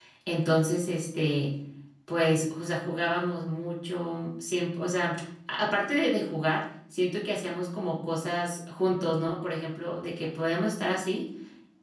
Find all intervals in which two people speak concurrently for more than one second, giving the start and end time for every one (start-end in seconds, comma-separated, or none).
none